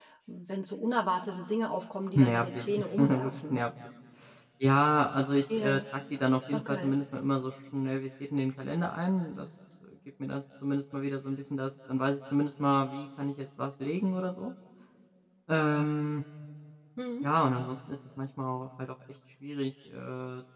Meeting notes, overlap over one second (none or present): present